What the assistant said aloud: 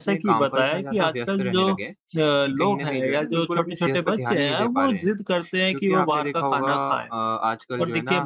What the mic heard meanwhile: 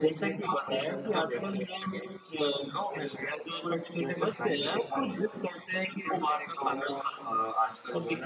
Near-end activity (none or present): none